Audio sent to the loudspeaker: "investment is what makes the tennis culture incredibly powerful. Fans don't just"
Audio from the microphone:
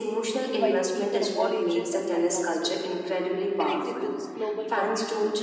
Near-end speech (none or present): present